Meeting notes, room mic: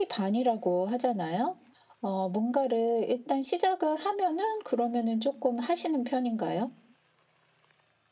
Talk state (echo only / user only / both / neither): echo only